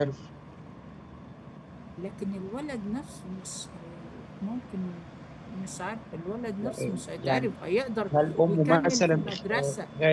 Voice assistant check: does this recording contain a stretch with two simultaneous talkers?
Yes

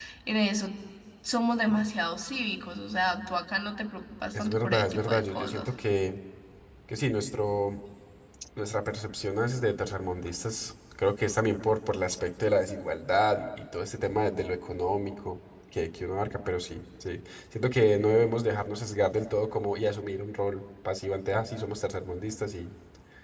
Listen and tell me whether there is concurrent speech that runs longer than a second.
Yes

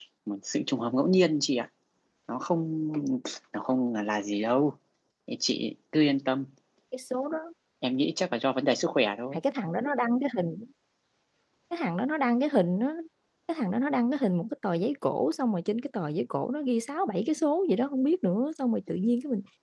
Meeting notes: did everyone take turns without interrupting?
Yes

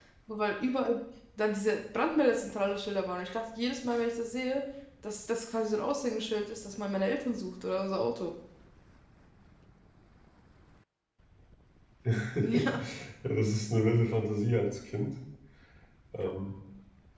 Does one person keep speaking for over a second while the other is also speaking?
No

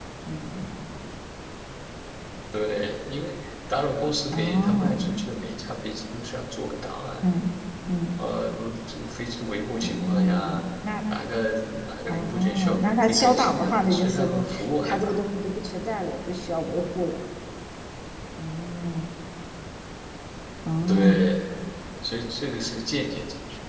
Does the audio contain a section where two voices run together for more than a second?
Yes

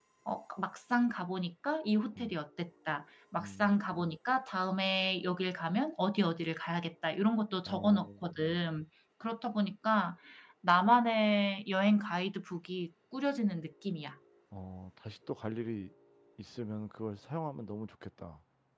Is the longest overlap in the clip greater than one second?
No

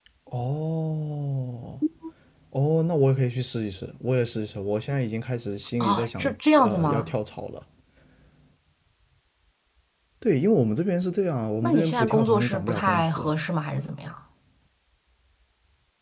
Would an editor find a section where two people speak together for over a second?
Yes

